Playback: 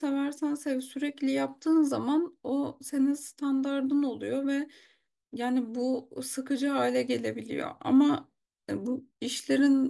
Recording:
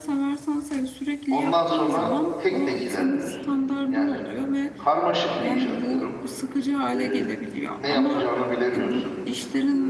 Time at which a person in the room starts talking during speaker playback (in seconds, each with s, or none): 1.3 s